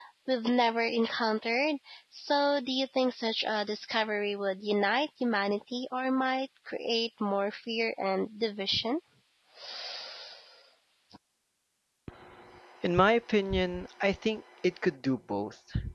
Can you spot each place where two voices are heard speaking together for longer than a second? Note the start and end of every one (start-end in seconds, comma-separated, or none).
none